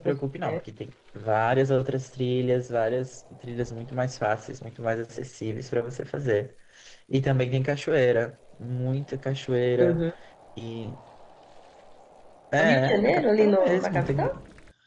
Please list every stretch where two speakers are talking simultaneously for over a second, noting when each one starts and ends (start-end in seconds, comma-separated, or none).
12.6-14.2